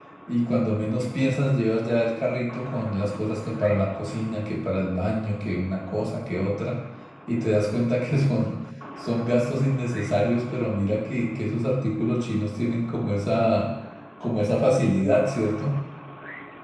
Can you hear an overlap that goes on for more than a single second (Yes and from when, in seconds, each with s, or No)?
No